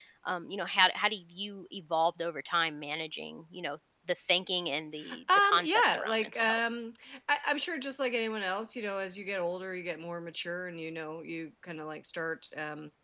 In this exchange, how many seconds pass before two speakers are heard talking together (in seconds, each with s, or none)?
5.0 s